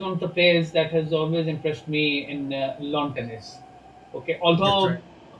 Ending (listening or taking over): listening